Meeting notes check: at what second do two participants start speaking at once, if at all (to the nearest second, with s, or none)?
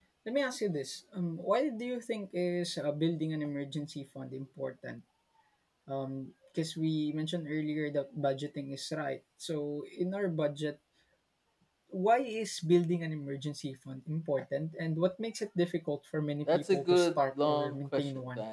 16 s